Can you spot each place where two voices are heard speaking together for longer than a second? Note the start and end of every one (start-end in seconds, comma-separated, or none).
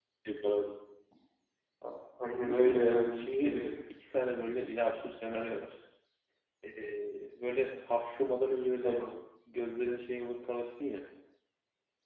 none